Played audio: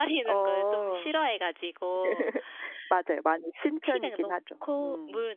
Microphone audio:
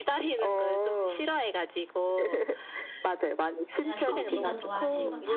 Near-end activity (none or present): present